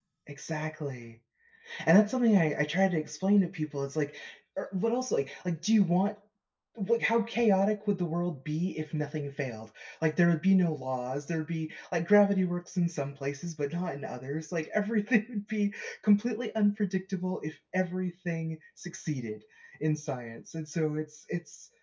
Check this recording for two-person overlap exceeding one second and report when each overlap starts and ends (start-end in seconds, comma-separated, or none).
none